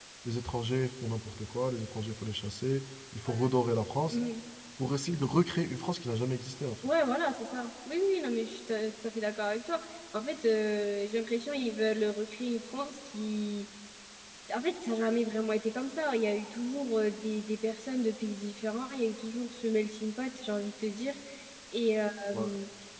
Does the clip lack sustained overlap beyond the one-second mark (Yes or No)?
Yes